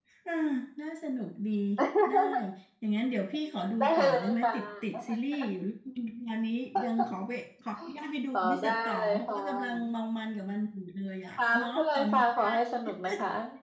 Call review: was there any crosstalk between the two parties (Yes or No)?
Yes